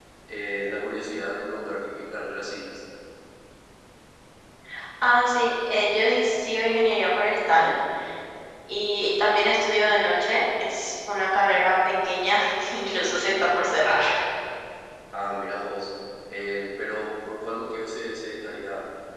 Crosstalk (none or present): none